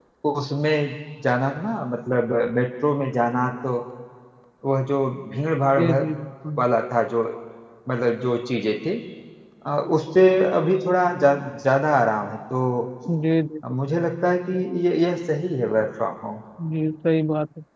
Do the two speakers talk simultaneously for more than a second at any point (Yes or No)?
No